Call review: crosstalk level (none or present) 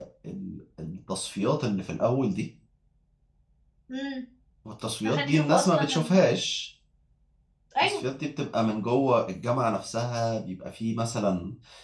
present